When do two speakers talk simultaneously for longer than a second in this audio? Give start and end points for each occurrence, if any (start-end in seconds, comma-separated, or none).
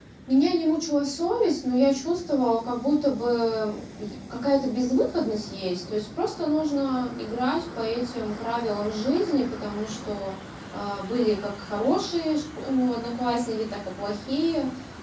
none